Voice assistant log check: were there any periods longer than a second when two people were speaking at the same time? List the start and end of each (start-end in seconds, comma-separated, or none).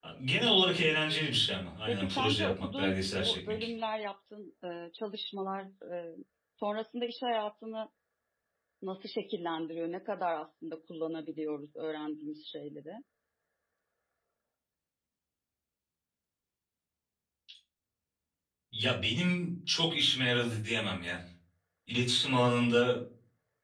1.9-3.7